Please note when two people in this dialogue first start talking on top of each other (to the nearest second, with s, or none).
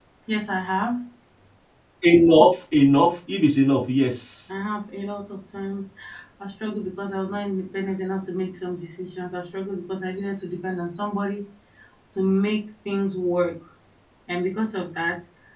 none